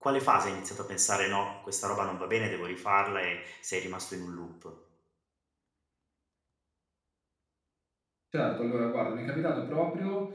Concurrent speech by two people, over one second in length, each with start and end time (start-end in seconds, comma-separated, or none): none